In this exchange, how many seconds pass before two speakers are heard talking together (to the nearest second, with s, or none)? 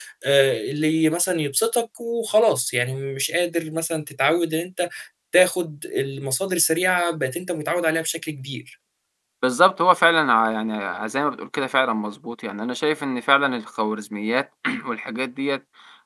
none